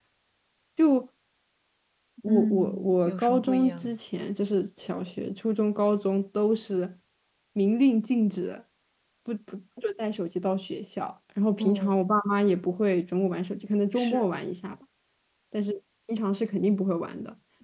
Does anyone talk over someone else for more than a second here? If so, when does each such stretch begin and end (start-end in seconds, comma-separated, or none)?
2.2-4.0